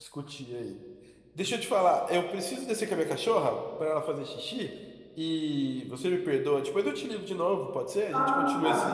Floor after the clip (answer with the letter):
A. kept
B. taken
B